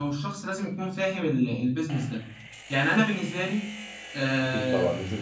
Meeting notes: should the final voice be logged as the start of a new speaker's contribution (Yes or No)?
Yes